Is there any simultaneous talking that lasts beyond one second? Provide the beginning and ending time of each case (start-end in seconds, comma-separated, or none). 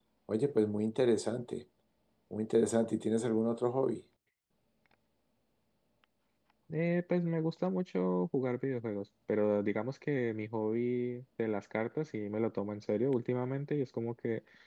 none